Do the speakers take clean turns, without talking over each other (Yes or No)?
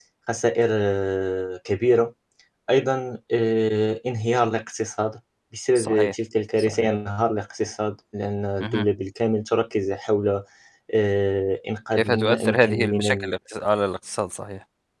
No